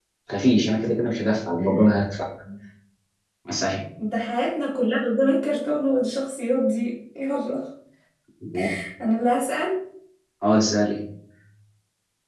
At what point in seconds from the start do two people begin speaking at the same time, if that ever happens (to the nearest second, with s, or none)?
none